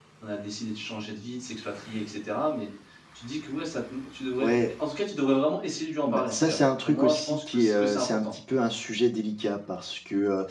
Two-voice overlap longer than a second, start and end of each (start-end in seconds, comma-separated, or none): 6.0-8.3